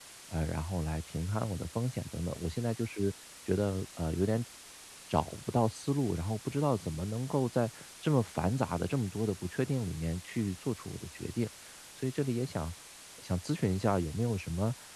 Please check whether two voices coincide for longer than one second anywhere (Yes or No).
No